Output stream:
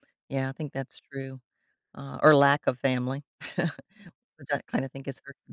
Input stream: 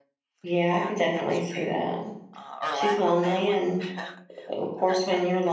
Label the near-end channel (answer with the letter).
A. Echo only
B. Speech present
B